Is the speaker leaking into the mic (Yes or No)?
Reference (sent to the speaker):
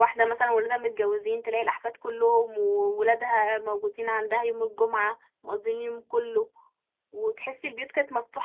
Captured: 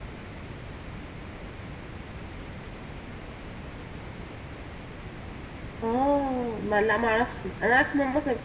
No